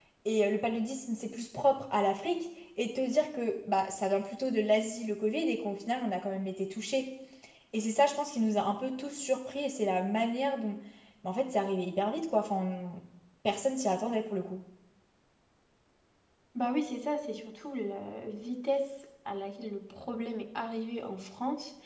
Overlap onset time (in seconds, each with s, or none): none